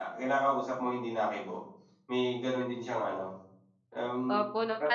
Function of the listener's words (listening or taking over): taking over